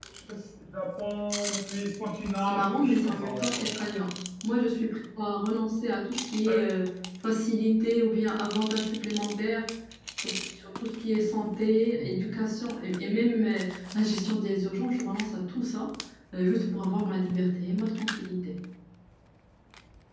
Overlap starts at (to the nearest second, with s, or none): 2 s